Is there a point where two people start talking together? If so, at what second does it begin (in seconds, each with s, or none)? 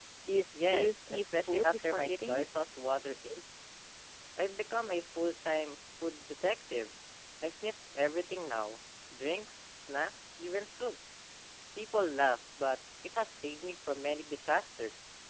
0.5 s